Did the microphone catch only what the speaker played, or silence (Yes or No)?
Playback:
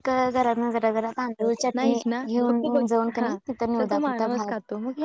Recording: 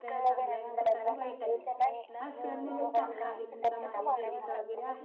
No